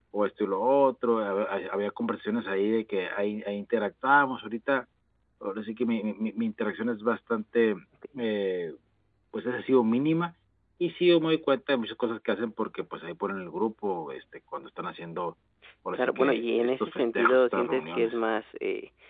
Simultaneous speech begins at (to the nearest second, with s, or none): 16 s